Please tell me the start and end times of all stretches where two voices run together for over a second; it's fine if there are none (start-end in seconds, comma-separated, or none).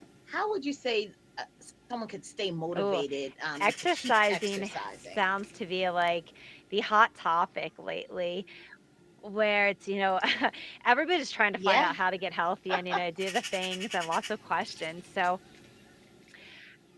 3.6-5.2